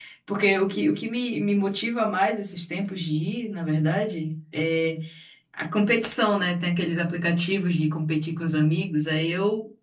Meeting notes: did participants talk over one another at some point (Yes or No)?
No